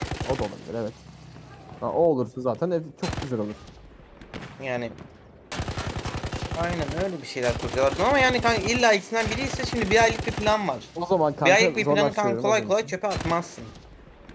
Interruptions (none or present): present